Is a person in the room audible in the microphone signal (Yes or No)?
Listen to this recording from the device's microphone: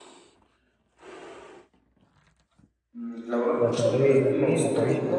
Yes